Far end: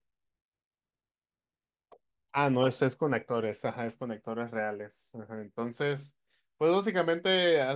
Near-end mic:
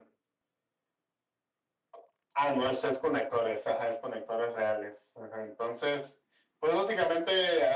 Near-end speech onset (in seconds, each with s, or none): none